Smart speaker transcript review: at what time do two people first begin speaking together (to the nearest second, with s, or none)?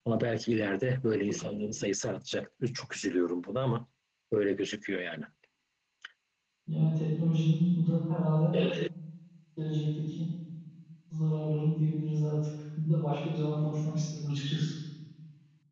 none